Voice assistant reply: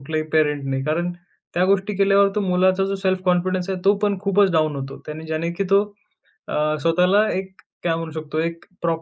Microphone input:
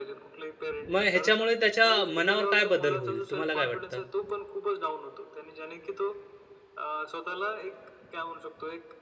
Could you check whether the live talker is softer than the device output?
No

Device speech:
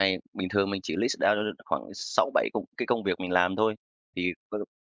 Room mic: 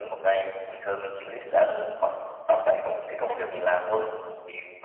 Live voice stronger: No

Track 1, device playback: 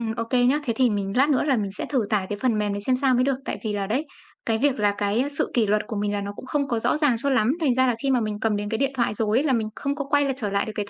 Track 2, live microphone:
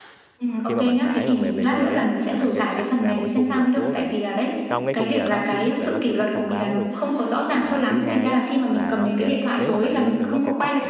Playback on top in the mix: Yes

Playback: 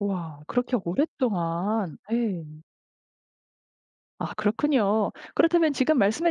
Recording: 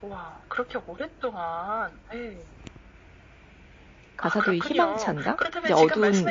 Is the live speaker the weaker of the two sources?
No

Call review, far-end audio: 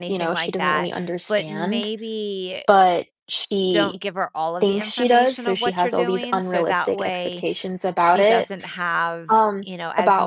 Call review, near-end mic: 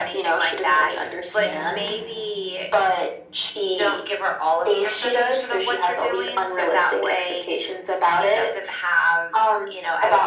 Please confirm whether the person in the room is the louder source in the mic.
No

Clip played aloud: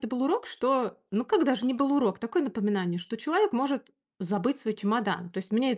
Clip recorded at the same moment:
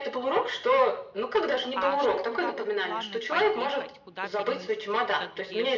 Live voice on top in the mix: No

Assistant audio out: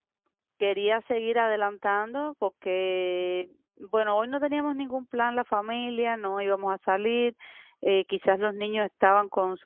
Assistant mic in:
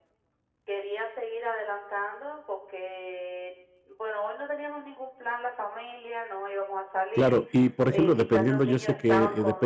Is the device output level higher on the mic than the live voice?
No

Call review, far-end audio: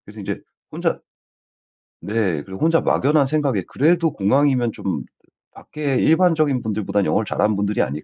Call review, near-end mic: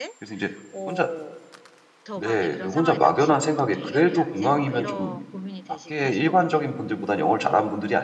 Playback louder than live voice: Yes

